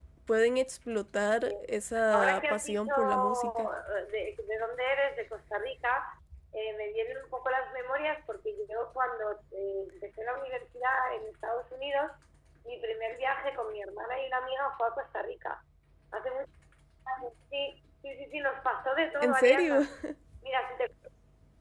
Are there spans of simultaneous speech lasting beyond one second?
Yes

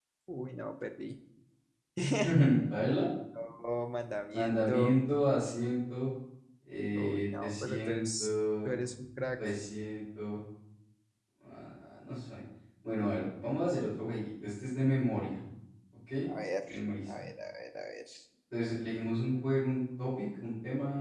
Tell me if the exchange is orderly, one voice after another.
No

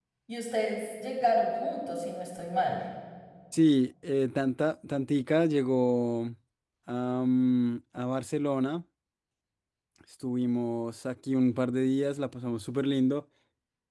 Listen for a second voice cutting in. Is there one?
No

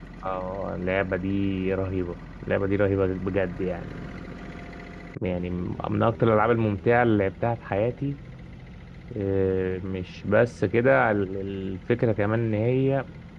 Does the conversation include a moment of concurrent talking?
No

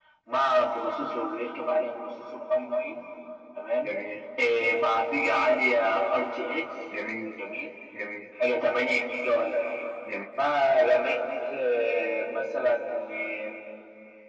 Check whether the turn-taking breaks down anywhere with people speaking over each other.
No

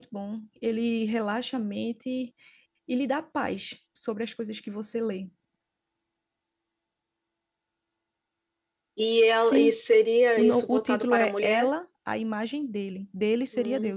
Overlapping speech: Yes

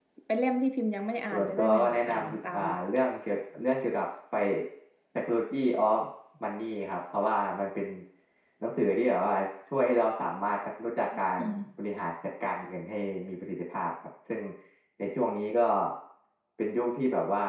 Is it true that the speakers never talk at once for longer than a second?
No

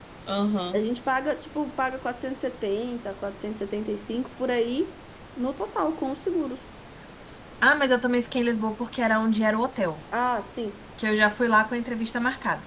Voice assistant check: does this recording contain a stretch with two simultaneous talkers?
No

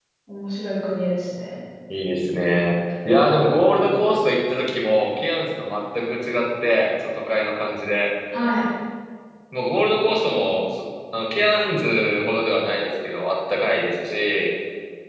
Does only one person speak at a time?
Yes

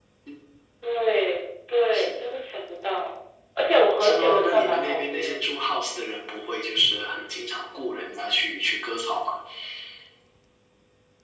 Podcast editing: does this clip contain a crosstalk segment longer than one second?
Yes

